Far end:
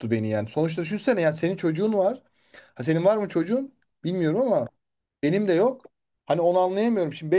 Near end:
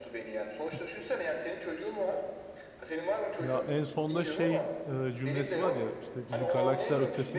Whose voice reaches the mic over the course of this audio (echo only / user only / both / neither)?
both